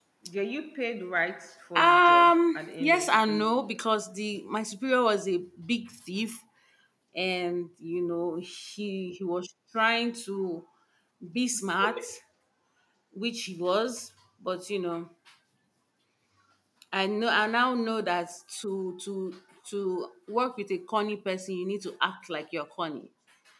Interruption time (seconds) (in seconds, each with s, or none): 1.8 s